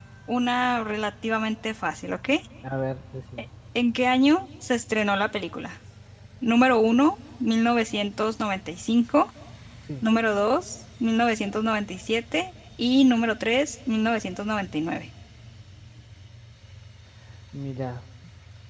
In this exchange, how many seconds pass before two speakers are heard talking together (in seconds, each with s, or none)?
none